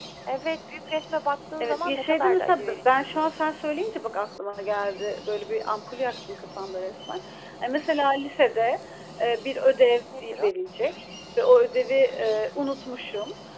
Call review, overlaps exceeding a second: present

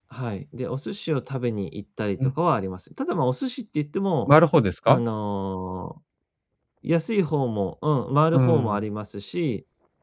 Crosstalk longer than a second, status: none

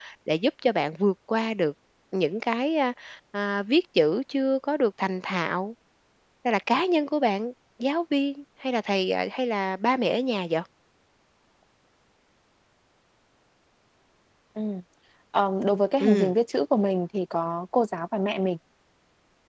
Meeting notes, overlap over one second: none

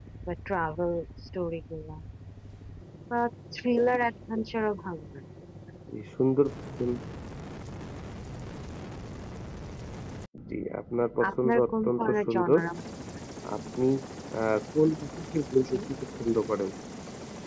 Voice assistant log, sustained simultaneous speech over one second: present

